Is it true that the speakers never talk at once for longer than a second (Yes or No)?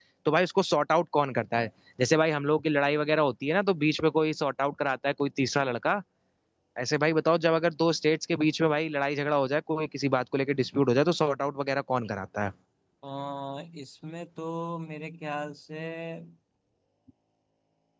Yes